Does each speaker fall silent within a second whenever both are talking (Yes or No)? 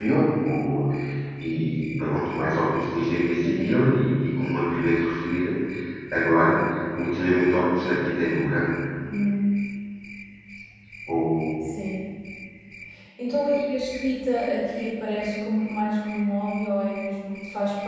Yes